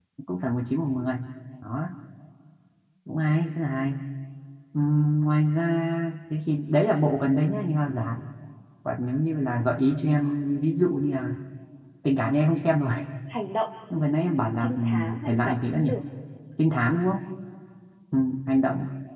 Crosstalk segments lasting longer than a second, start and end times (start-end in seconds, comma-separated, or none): 14.6-15.9